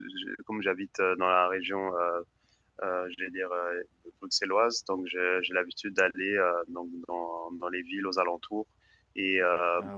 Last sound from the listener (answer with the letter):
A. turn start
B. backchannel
B